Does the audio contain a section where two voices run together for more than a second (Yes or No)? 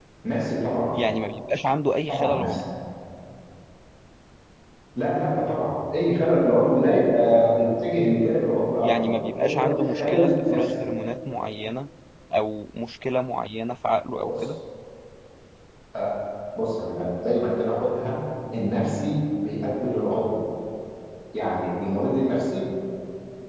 Yes